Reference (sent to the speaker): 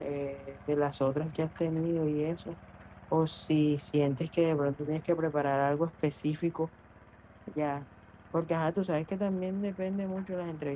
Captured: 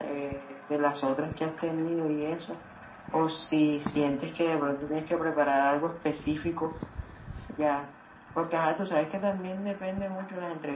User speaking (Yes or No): No